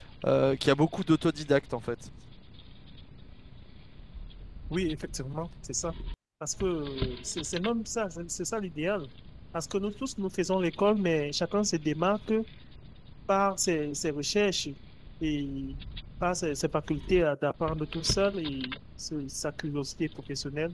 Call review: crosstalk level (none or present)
none